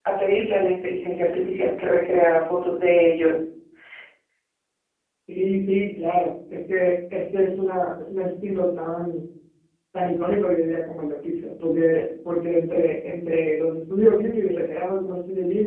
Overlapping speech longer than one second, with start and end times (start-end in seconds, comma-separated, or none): none